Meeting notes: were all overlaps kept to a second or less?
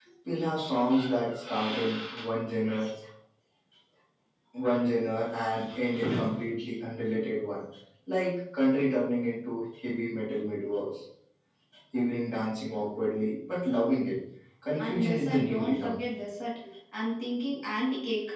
No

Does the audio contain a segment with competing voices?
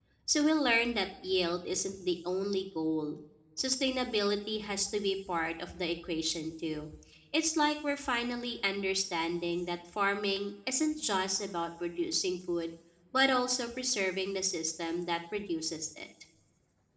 No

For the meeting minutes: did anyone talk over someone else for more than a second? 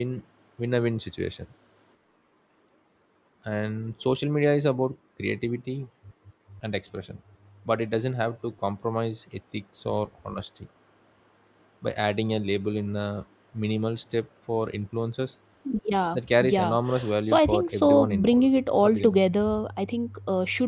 Yes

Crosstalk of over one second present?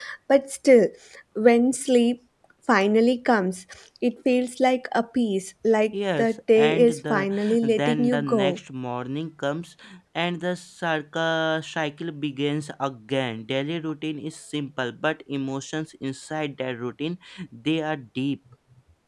Yes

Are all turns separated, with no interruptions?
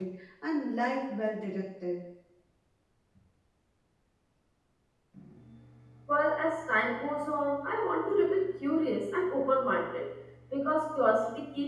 Yes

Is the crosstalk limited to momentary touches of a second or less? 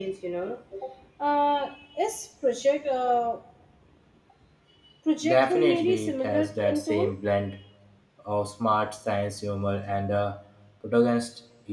No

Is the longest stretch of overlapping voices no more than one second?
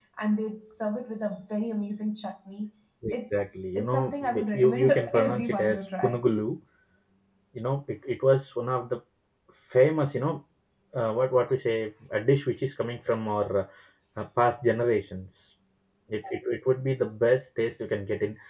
No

